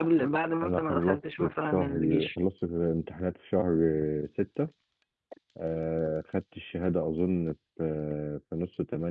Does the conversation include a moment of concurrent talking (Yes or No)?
Yes